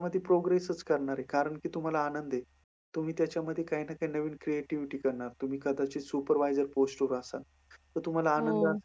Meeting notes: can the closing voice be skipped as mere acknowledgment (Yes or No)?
Yes